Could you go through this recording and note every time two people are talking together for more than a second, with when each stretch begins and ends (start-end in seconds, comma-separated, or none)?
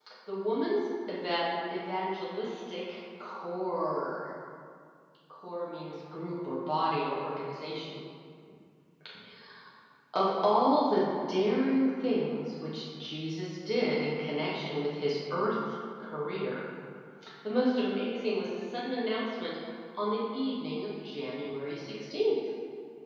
none